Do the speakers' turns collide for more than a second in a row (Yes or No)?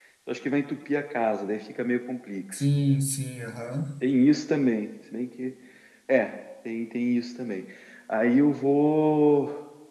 No